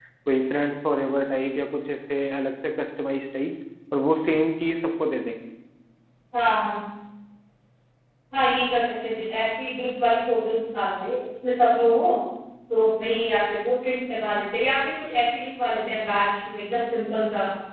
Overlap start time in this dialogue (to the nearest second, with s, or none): none